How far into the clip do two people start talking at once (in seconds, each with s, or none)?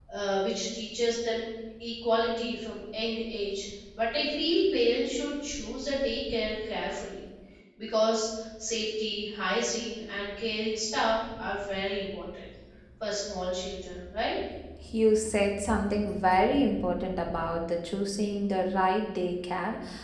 none